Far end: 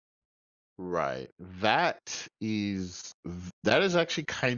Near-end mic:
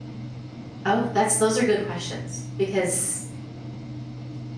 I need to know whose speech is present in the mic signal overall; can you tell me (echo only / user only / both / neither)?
user only